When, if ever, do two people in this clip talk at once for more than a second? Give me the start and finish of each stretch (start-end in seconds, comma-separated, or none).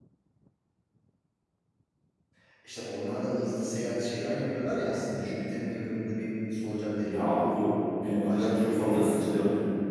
8.1-9.4